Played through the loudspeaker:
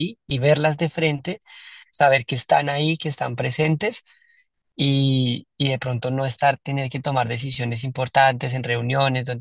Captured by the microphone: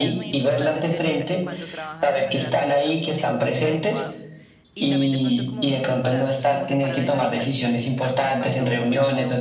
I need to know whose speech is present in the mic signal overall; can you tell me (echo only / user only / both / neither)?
both